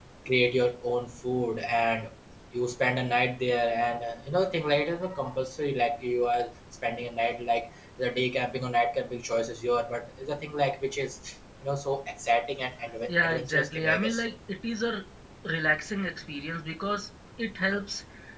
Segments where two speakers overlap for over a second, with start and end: 13.1-14.3

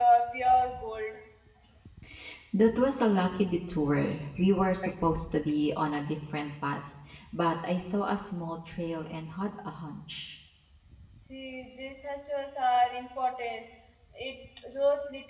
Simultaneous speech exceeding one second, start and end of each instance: none

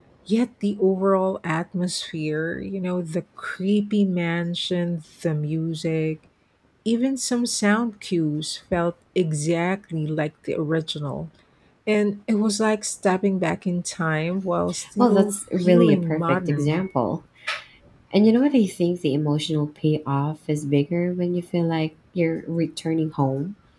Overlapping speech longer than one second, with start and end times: 15.0-16.8

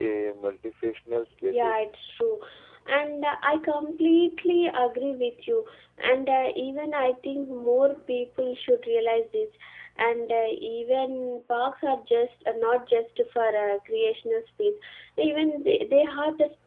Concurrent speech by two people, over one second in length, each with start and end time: none

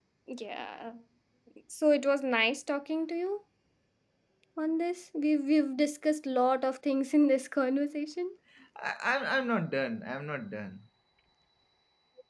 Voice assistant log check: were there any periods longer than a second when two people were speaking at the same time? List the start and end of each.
none

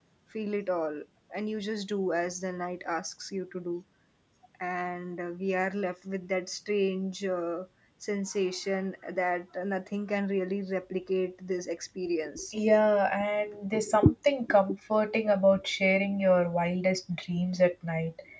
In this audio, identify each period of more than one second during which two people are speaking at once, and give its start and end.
none

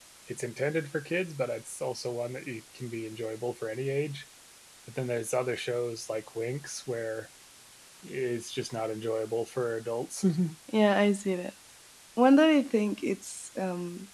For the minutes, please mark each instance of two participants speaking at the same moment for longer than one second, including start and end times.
none

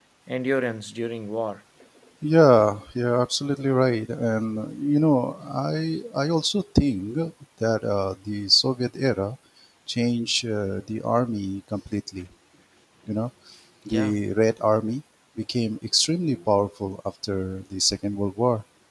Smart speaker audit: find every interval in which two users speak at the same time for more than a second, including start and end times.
none

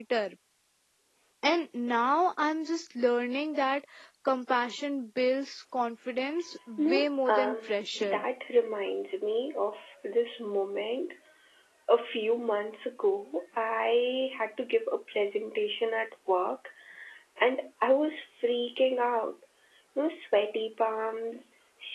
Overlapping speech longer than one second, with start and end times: 6.8-8.2

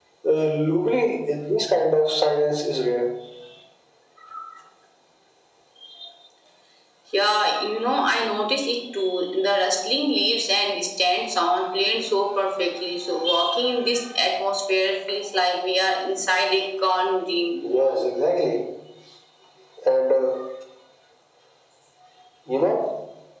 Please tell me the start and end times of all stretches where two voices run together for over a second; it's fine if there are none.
none

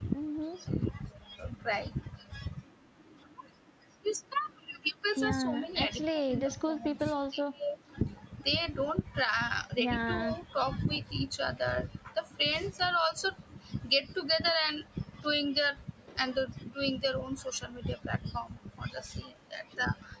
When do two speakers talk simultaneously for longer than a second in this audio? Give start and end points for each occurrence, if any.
5.2-7.4

